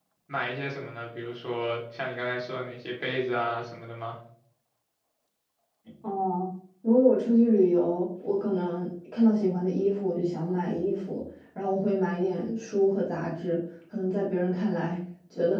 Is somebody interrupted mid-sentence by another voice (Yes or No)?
No